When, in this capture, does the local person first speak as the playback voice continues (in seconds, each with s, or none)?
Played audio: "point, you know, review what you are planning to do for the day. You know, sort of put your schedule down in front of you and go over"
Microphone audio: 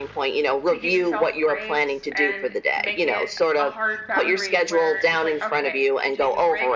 0.7 s